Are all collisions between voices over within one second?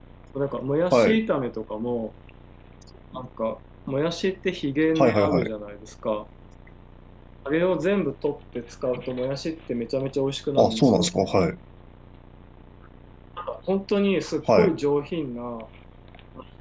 Yes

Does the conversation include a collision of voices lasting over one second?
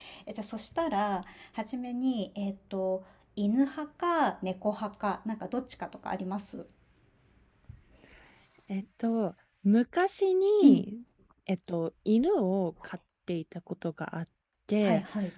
No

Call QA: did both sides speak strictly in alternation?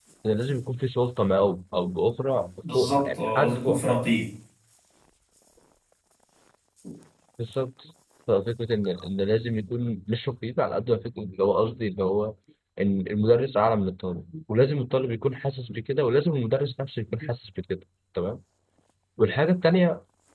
No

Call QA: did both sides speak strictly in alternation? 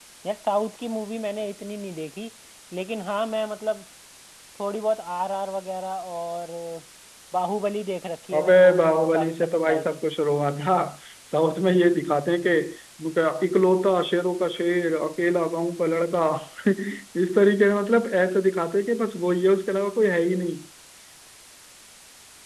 No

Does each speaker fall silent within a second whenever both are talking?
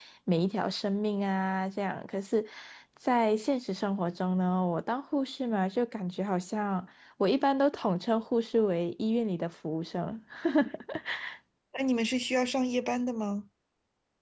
Yes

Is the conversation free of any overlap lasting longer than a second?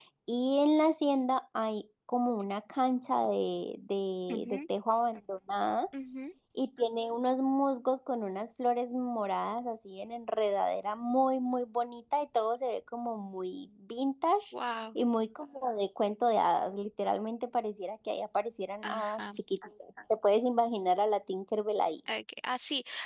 Yes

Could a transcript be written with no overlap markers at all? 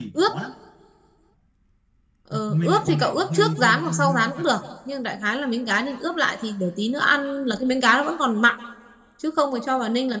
No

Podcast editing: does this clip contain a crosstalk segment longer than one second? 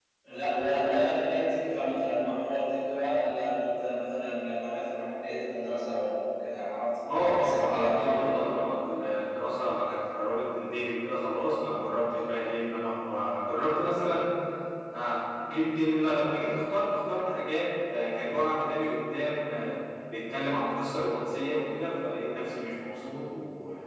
Yes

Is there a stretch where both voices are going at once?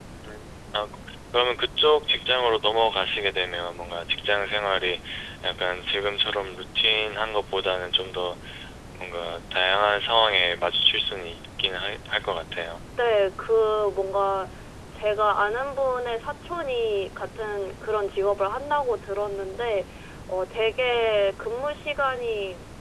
No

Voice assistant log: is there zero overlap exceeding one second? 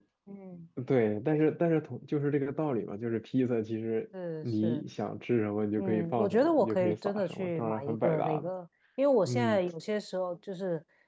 No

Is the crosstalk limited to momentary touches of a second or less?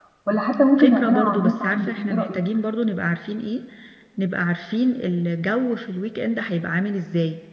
No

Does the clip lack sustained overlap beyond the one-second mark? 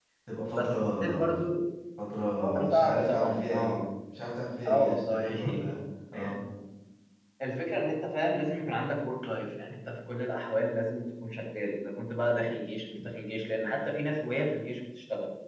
No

